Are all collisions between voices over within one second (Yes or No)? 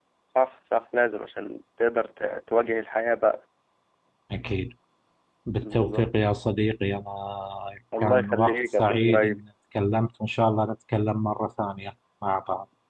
No